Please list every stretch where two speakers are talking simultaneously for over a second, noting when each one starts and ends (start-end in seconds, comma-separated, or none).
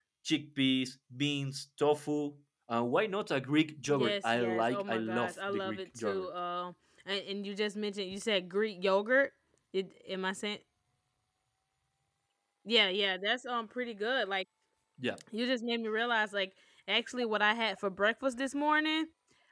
3.9-6.3